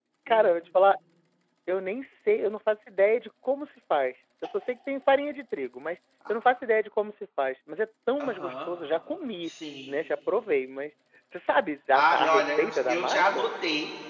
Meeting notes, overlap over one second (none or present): present